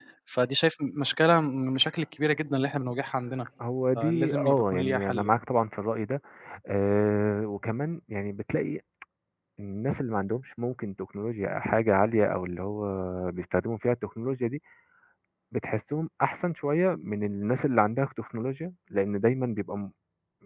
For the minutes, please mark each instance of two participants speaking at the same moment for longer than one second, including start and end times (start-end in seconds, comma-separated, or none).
4.0-5.4